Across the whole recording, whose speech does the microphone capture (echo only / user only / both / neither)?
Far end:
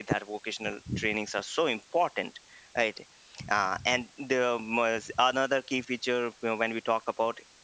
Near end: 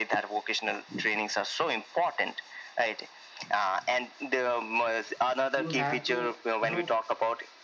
both